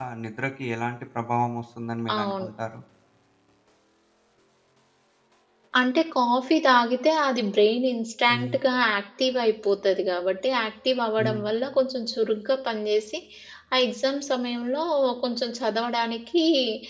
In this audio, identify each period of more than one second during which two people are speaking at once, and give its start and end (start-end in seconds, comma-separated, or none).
none